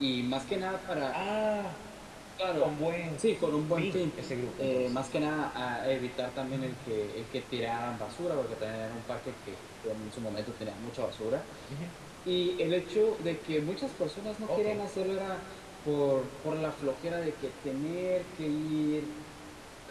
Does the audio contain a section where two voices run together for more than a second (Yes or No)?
No